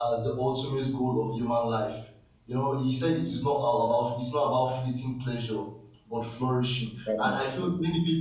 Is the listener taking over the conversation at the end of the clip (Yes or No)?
No